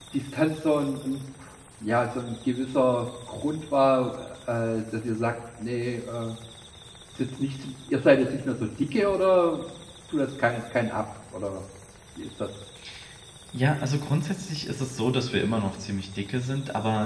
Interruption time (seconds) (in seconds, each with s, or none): none